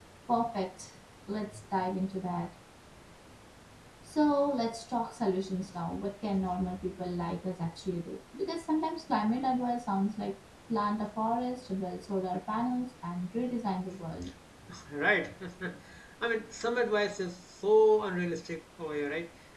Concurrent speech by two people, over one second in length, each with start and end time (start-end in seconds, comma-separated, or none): none